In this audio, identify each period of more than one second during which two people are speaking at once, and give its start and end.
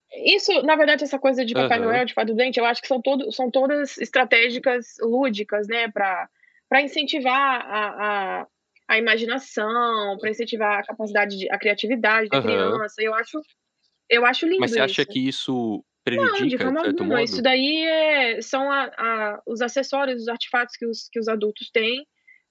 16.1-17.4

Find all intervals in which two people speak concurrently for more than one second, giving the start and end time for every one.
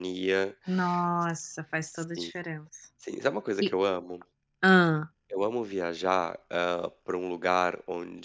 none

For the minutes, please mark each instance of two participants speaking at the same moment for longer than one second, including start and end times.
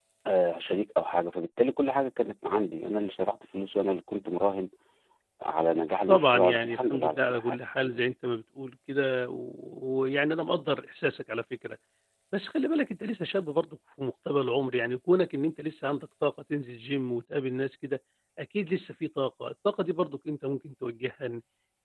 6.1-8.0

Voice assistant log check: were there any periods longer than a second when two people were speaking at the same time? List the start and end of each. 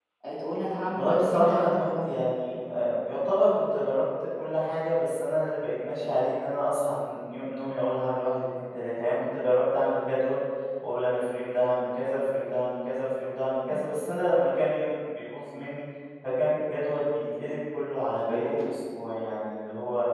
0.9-2.2

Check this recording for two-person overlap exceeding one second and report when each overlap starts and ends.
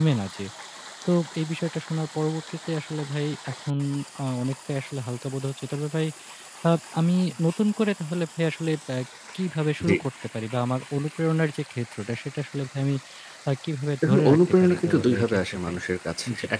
14.0-15.8

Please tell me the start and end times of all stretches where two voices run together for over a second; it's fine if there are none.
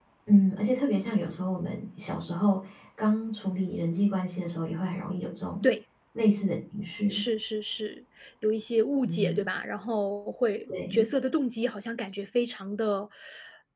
none

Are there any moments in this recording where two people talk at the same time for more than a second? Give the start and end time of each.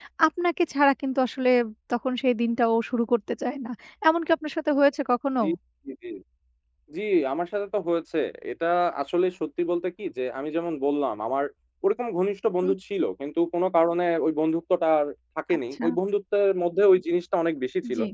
none

